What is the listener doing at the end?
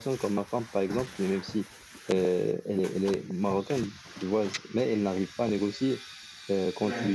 listening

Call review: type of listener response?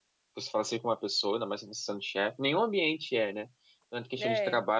listening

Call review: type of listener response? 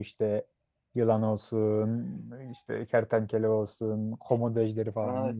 taking over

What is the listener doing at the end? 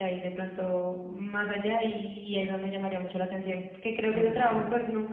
listening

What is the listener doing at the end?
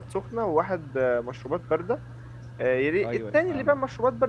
listening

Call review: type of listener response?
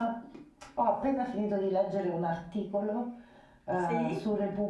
listening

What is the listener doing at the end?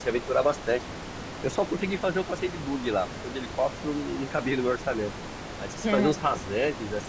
listening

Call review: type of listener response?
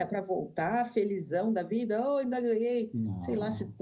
listening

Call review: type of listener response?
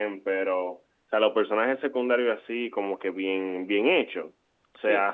listening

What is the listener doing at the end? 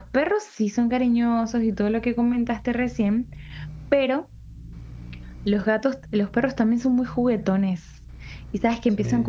listening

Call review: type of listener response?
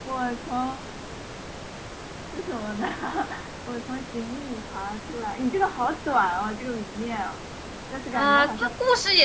taking over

